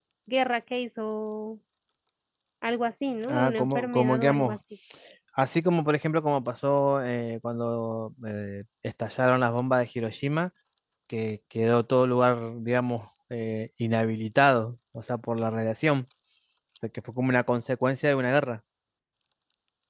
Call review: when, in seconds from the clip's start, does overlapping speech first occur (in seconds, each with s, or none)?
3.3 s